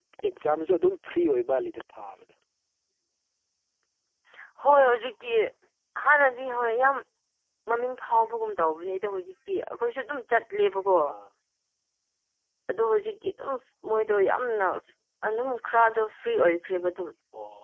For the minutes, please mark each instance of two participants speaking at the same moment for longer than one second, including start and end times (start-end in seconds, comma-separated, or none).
none